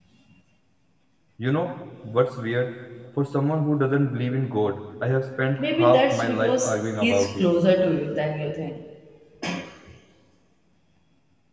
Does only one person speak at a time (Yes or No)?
No